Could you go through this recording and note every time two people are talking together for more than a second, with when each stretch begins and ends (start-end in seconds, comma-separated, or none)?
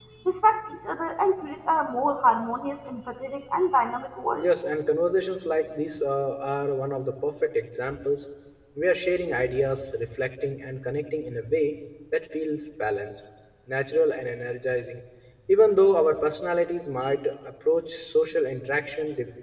none